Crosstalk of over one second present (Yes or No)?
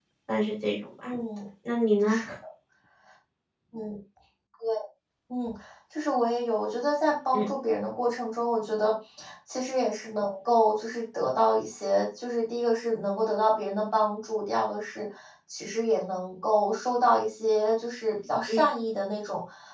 No